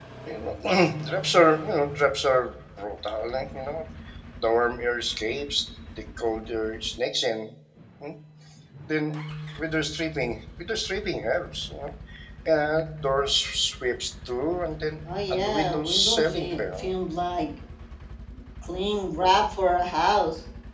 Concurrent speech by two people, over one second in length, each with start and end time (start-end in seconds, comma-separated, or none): 15.3-16.9